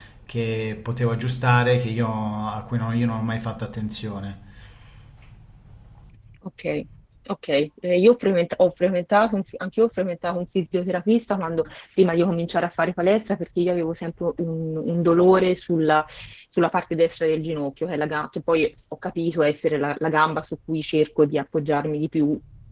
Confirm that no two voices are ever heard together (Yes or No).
Yes